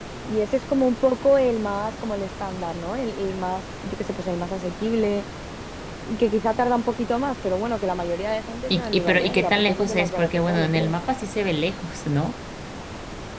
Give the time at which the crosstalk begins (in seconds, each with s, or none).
8.7 s